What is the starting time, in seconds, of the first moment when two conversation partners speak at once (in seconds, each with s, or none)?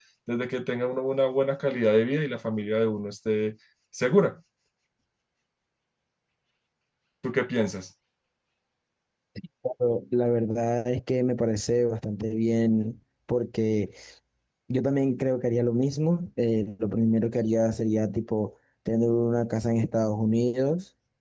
none